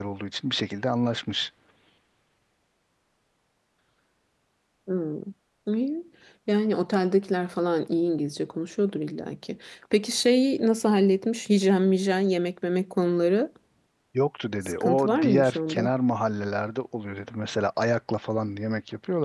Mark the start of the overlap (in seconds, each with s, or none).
14.6 s